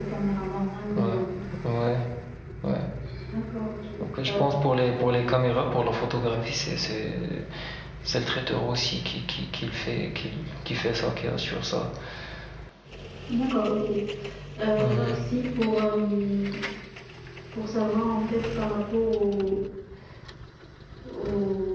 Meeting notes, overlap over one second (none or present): none